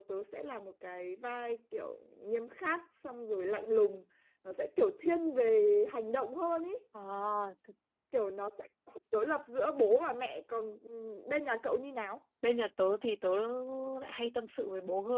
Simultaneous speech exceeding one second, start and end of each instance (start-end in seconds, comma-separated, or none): none